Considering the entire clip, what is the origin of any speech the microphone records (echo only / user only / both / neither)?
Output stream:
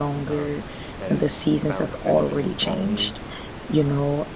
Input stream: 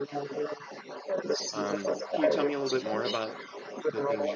both